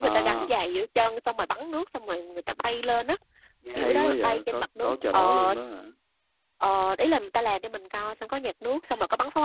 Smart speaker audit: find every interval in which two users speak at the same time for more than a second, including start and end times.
3.8-5.5

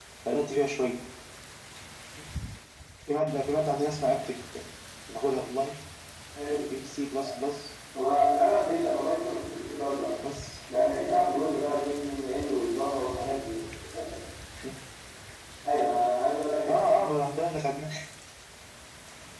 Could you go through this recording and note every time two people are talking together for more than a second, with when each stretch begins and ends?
none

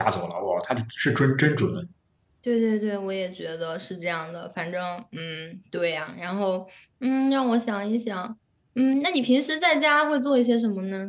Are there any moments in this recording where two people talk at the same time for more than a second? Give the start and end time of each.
none

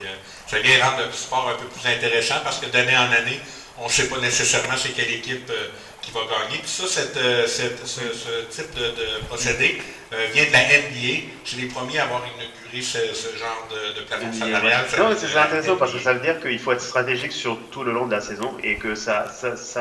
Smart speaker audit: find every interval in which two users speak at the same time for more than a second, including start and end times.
14.2-16.0

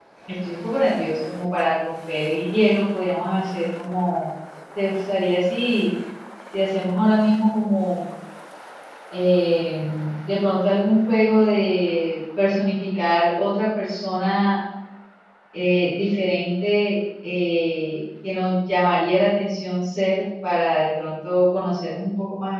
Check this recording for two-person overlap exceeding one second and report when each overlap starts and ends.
none

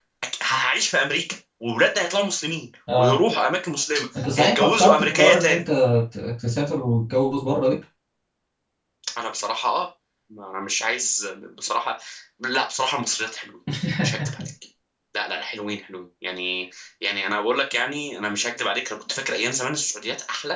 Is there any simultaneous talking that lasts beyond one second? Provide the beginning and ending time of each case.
4.2-5.6

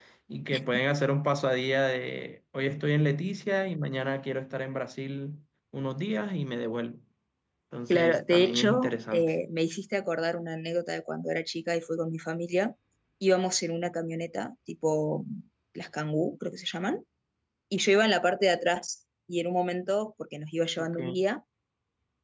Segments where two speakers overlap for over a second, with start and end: 7.9-9.3

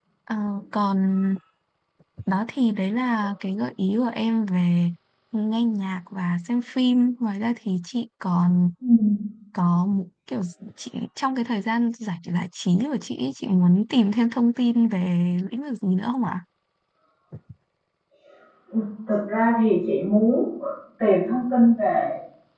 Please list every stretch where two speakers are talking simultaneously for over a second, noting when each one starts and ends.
none

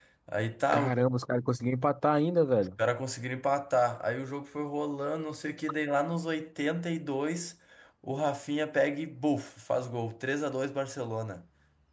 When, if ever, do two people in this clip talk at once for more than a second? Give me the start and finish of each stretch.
none

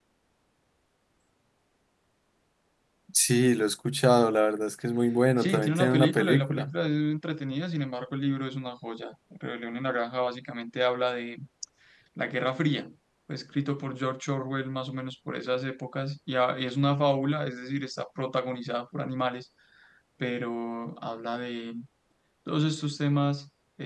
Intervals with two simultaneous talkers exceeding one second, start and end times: 5.4-6.7

